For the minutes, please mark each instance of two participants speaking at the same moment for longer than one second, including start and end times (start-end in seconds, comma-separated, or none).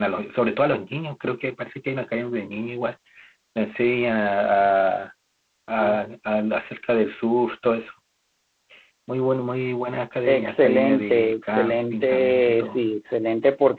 10.3-12.8